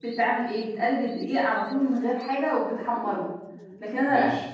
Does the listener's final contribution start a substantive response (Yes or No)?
No